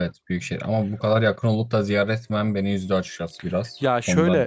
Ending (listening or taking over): taking over